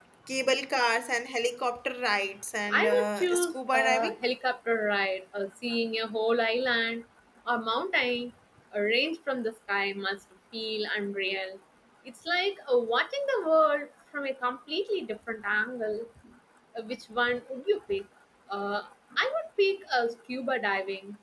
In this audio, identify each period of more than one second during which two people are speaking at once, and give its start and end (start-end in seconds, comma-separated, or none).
2.7-4.2